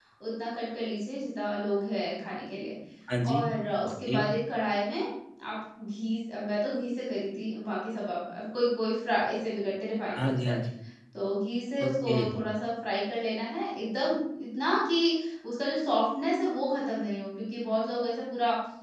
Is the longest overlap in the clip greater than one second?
No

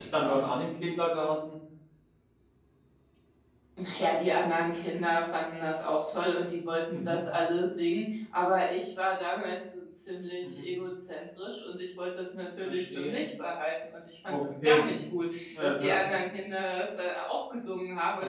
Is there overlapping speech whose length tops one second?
No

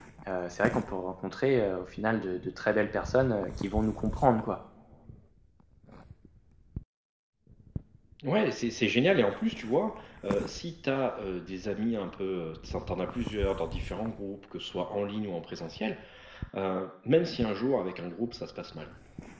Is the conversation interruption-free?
Yes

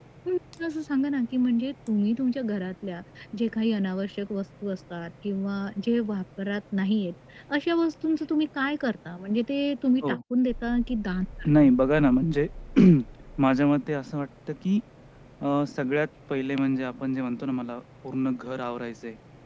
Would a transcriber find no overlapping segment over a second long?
Yes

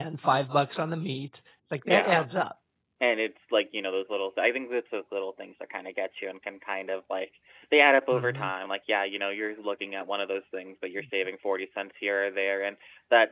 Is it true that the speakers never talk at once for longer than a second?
Yes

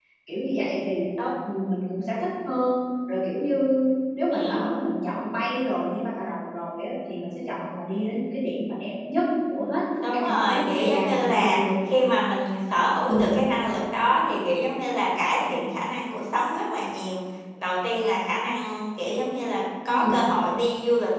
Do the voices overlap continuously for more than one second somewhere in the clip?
Yes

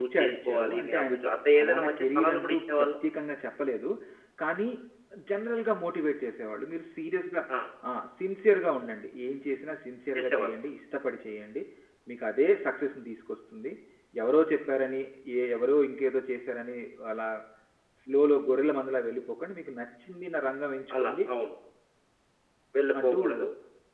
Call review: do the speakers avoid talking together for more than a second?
No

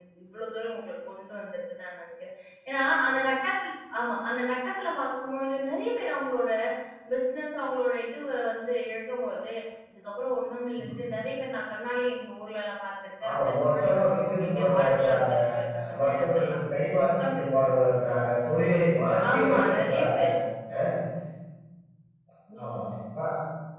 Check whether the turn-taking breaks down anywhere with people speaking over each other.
Yes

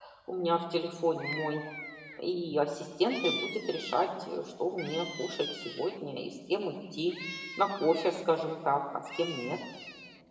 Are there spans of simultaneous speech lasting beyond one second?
No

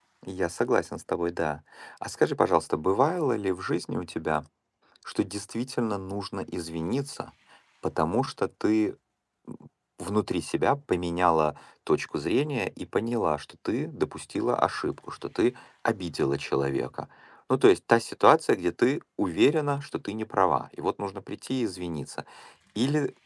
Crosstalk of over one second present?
No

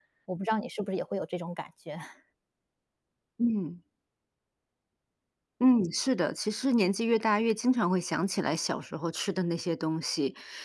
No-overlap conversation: Yes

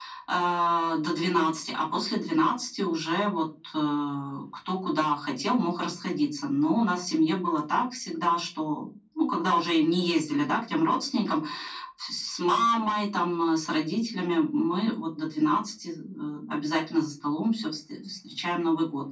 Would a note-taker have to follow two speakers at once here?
No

